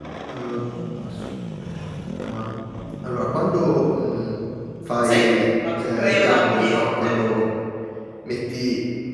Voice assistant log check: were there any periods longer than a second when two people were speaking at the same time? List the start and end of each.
5.8-7.1

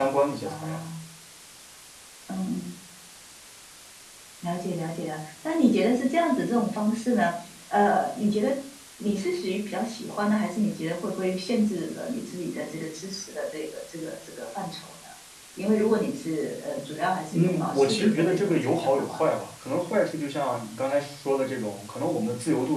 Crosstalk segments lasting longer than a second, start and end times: 17.3-19.2

